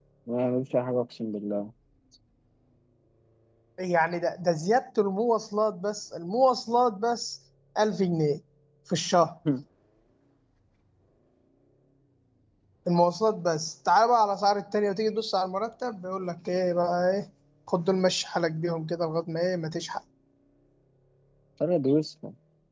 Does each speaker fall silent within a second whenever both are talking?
Yes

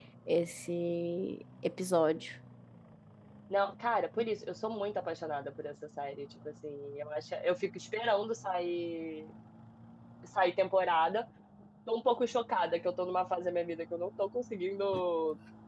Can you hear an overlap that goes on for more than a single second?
No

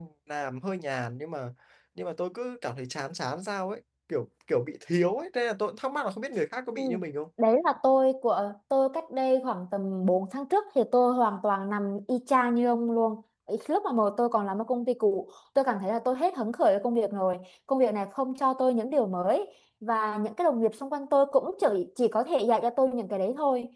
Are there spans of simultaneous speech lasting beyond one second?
No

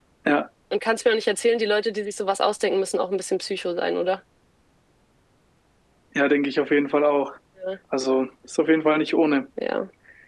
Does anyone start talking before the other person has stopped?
No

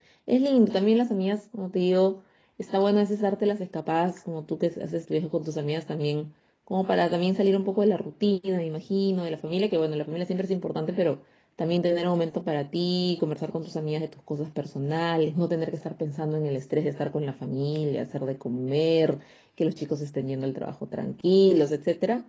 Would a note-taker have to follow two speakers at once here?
No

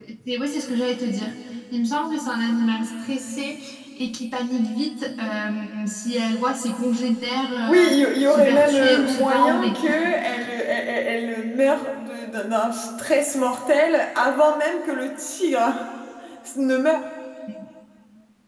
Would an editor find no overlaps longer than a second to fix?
No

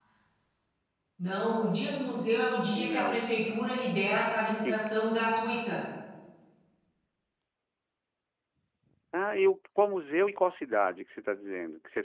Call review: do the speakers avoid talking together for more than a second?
Yes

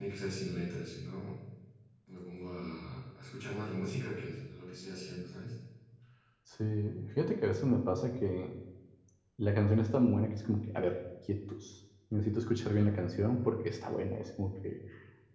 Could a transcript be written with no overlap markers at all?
Yes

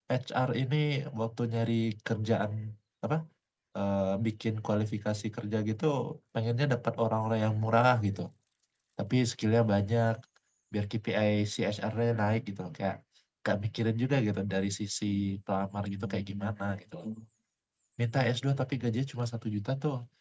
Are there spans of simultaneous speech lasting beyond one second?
No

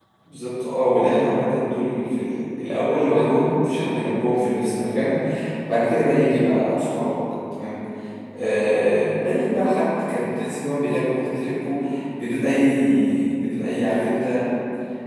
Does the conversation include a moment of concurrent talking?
No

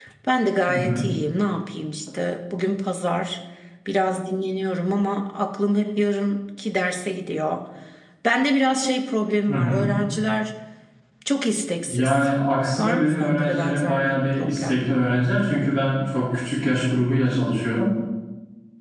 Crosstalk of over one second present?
Yes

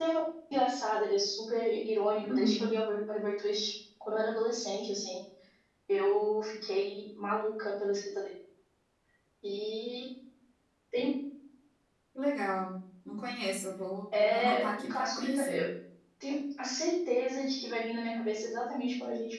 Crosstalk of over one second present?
Yes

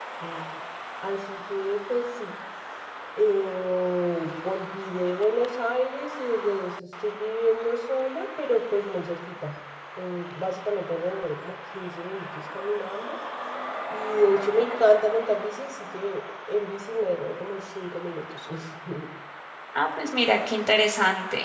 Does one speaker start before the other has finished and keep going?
No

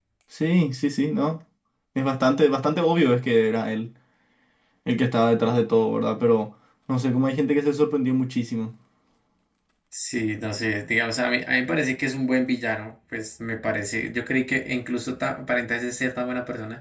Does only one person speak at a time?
Yes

